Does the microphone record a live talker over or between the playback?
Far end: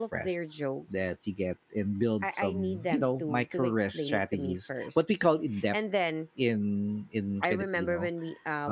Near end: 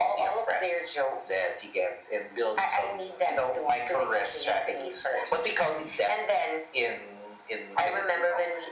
No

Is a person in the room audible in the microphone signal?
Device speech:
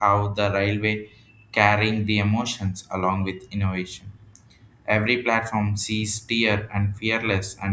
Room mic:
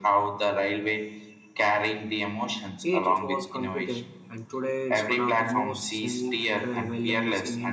Yes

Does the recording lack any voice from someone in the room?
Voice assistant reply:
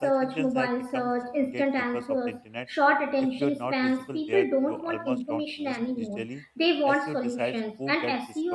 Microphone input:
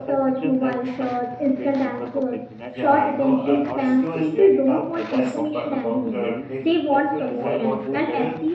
No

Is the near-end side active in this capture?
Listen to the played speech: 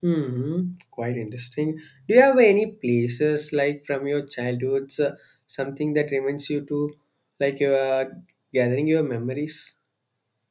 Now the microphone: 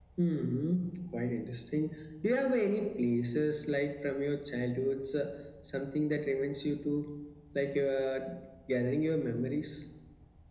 No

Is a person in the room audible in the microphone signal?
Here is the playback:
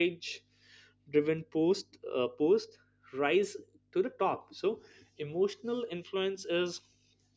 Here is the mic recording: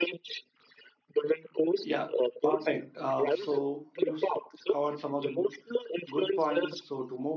Yes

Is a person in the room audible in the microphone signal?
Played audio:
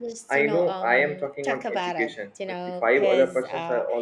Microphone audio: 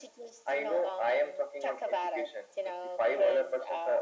No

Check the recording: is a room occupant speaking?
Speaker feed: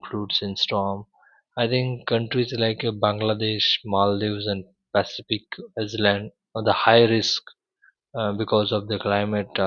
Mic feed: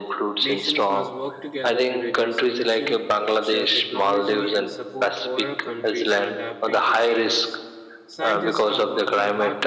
Yes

